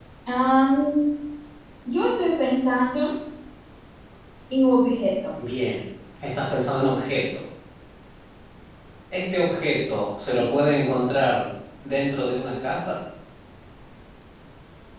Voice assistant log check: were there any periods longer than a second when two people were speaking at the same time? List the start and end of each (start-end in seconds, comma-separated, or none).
none